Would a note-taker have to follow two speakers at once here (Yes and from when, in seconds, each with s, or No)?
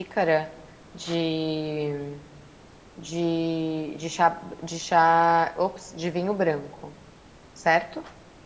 No